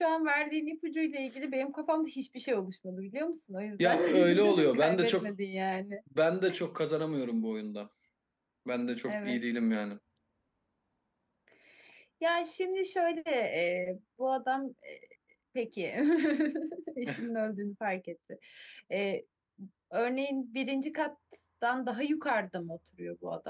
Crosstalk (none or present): present